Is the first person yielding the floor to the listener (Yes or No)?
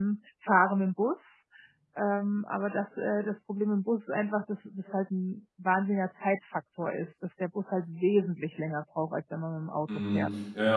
Yes